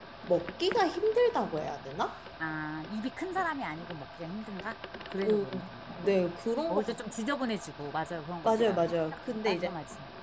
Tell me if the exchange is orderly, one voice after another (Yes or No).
No